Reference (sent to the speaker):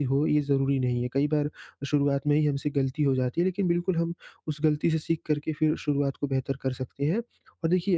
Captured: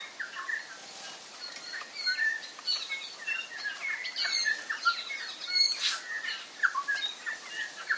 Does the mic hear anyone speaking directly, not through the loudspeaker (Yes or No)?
No